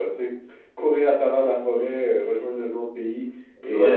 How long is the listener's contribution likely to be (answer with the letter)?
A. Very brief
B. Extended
B